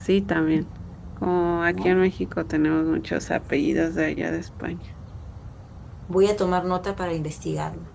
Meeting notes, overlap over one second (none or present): none